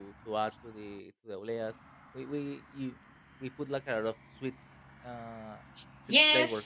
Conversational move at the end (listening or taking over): taking over